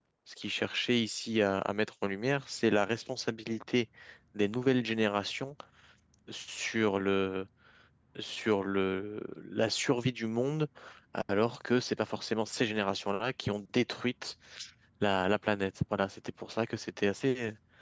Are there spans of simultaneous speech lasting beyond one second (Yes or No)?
No